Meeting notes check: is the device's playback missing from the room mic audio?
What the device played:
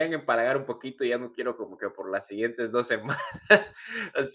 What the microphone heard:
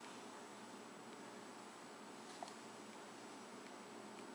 Yes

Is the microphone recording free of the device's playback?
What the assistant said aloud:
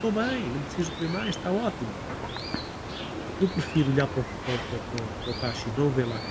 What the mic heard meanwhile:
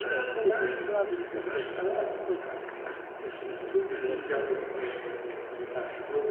No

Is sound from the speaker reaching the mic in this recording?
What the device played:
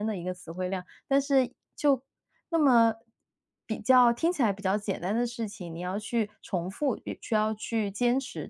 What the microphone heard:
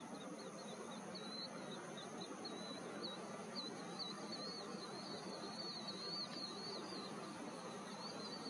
No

